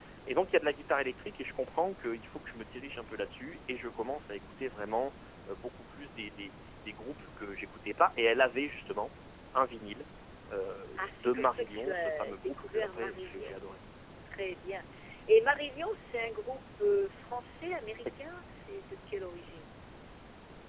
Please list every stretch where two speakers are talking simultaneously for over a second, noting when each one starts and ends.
11.0-13.6

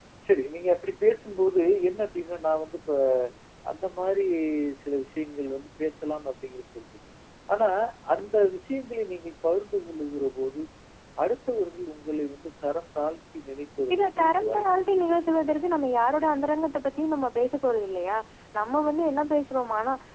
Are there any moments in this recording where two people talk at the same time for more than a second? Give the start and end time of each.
13.9-15.1

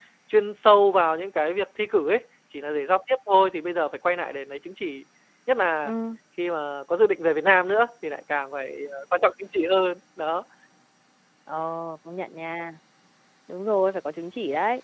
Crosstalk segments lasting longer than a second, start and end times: none

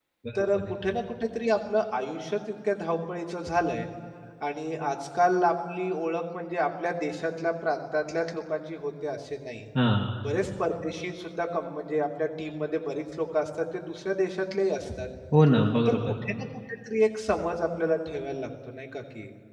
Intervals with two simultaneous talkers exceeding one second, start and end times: none

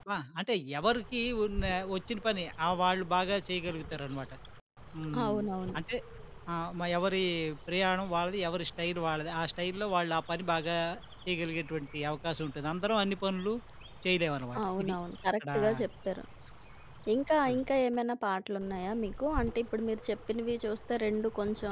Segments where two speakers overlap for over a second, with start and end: none

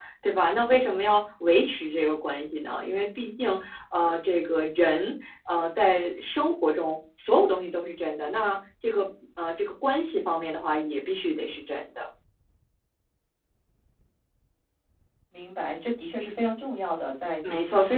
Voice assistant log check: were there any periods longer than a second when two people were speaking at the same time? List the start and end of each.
none

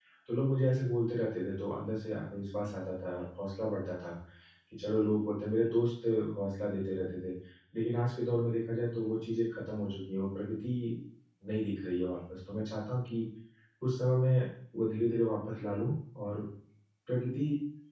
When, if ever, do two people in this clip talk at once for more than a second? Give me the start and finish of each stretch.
none

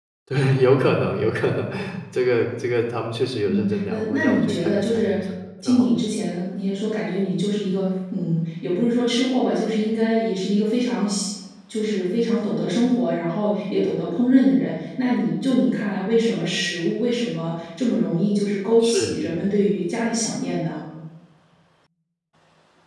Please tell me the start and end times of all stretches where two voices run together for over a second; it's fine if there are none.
3.5-5.2

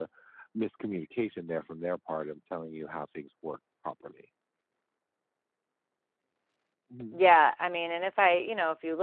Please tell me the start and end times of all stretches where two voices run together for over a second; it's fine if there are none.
none

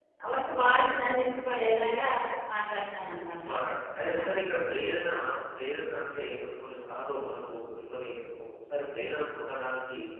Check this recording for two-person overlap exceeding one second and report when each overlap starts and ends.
none

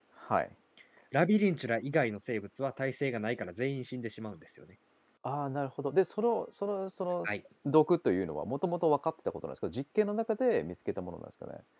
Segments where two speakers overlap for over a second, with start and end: none

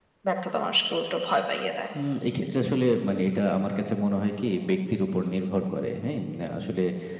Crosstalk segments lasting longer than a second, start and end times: none

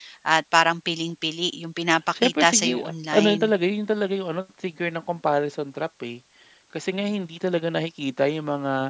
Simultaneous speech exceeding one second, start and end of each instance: 2.2-3.5

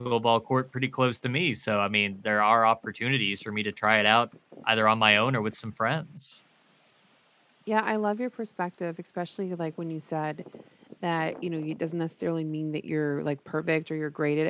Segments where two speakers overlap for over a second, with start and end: none

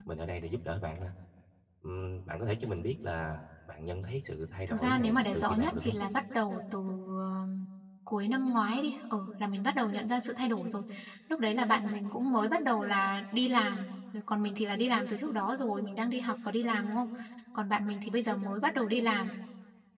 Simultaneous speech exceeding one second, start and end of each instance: 4.7-6.0

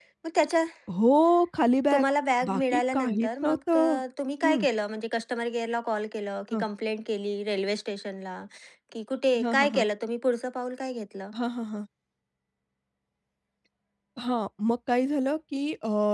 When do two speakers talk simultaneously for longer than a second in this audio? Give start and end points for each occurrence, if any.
2.5-4.0

